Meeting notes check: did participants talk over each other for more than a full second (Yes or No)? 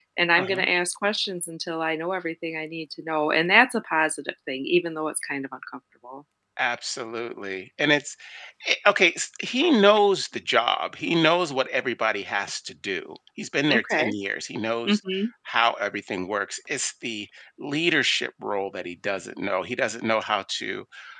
No